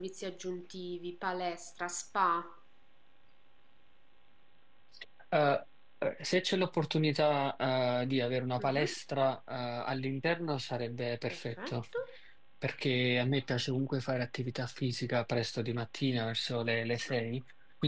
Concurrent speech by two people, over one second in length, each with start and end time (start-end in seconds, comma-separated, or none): none